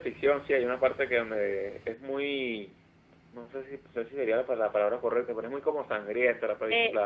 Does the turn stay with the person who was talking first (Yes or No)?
No